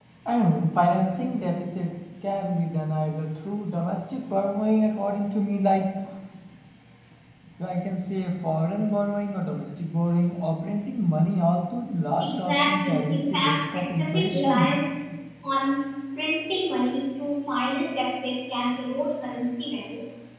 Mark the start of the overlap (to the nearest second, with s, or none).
12 s